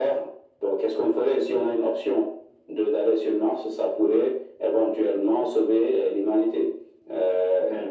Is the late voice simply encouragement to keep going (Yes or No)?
No